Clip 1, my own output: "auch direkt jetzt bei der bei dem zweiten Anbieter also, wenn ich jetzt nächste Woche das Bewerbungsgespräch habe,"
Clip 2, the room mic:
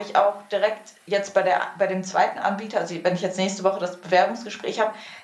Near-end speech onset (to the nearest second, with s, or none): none